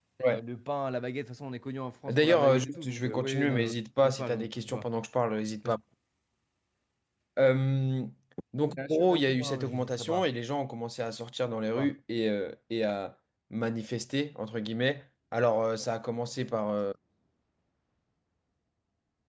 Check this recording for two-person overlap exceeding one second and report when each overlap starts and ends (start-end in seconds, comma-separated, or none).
2.1-4.8, 8.8-10.3